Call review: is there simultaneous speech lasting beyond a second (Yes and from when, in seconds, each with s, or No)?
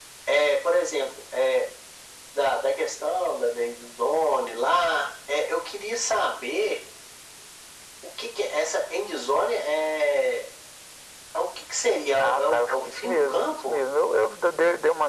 Yes, from 12.2 s